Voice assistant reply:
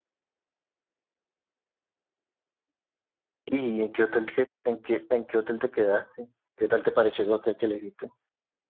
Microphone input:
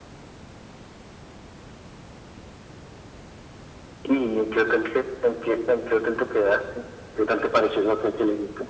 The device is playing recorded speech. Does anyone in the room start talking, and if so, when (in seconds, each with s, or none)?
none